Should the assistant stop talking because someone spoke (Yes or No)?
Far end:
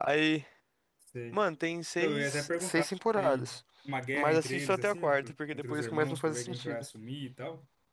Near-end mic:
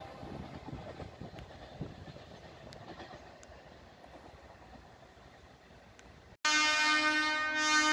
No